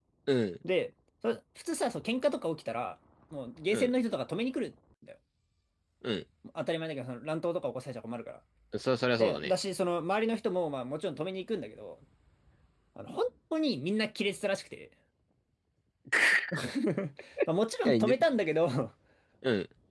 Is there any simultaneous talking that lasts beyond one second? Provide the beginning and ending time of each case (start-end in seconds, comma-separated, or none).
none